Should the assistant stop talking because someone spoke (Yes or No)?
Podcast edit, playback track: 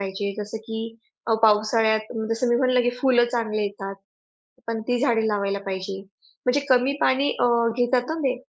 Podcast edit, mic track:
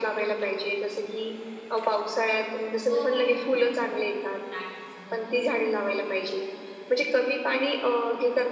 Yes